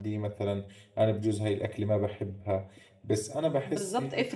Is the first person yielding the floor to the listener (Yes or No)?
Yes